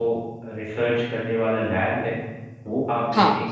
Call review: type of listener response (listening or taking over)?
listening